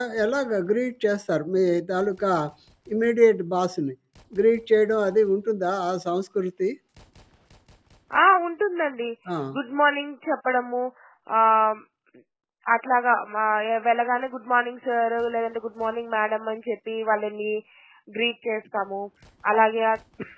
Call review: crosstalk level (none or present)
none